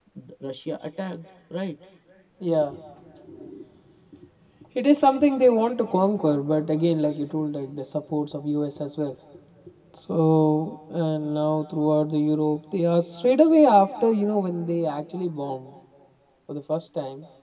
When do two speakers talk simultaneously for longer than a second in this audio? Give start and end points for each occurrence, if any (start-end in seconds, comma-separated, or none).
none